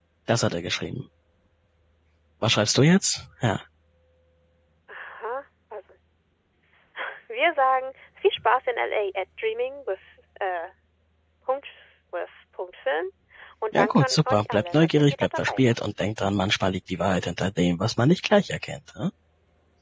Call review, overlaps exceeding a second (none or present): present